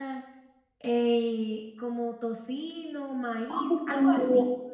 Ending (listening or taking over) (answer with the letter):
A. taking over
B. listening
A